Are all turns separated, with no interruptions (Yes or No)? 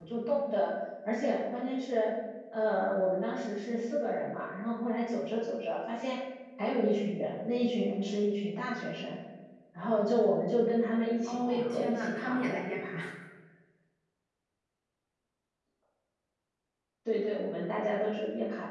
No